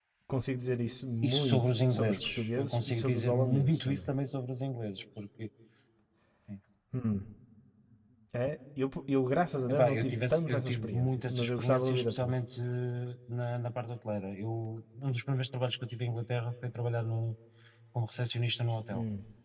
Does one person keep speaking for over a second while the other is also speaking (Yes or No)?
Yes